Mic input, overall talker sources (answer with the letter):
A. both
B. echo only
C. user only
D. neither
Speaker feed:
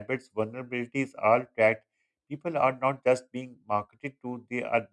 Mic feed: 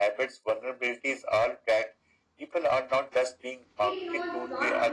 A